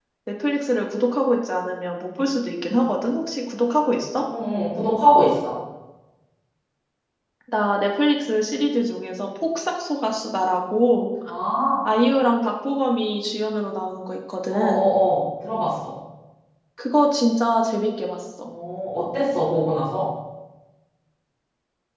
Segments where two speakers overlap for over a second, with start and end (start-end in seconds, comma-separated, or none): none